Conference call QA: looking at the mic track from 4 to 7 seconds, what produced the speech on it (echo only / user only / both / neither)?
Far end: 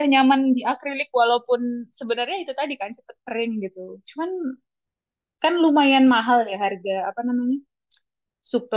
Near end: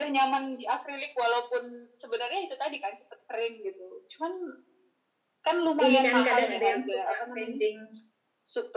both